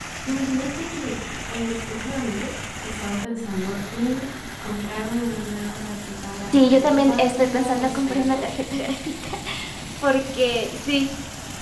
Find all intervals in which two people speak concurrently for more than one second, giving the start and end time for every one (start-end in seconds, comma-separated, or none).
6.7-8.4